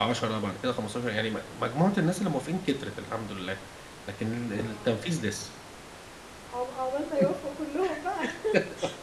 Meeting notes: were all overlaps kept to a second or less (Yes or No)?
Yes